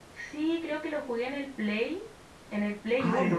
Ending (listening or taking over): taking over